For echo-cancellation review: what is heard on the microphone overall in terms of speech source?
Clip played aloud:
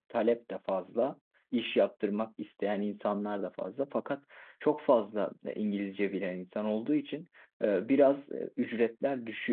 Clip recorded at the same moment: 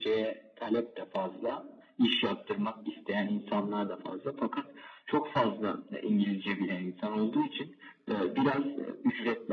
echo only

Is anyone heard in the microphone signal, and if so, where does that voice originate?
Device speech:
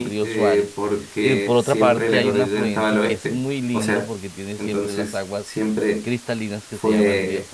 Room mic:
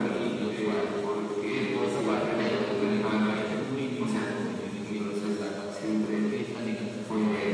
echo only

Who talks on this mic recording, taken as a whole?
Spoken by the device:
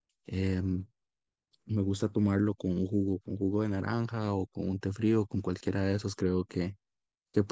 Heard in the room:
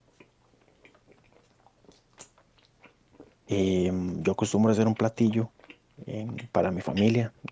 user only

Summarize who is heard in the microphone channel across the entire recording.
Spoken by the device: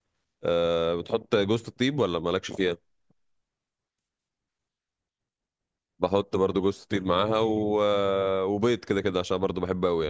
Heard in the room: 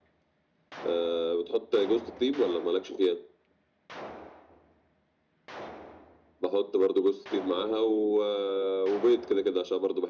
echo only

